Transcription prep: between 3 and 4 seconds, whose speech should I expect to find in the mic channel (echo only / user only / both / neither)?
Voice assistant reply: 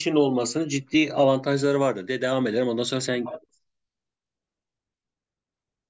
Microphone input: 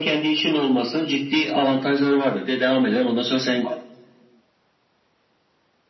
echo only